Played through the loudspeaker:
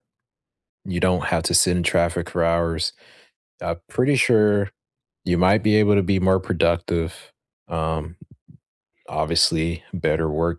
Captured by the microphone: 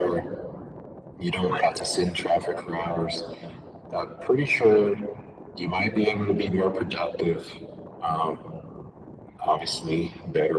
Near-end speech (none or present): none